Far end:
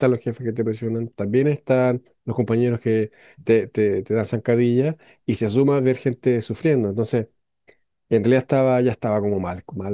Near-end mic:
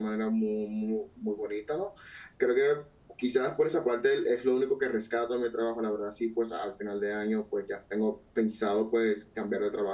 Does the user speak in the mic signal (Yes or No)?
Yes